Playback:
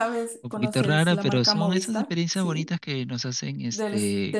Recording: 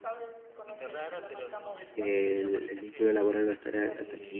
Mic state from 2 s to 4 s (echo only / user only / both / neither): both